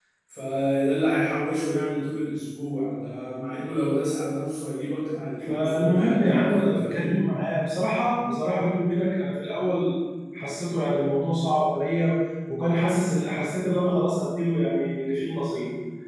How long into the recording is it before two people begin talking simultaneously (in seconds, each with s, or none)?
5.4 s